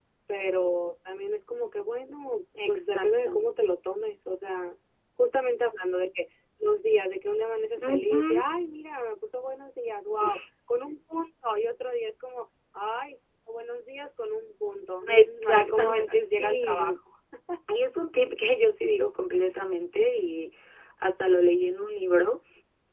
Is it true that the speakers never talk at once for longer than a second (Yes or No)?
No